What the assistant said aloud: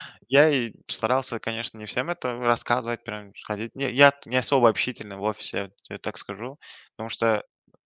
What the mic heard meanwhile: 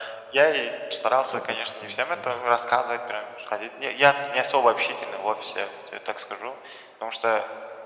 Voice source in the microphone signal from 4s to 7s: echo only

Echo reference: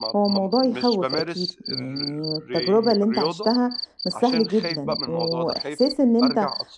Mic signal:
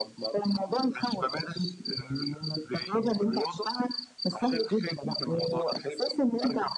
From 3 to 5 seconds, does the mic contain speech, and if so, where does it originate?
echo only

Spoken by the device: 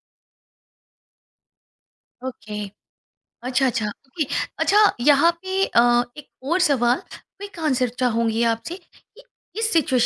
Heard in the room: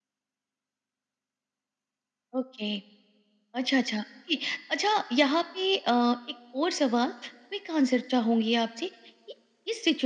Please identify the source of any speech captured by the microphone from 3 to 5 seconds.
echo only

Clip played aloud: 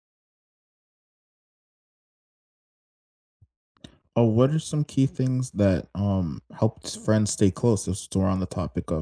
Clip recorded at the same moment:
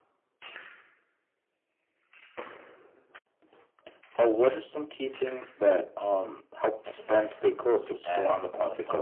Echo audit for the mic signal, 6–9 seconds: both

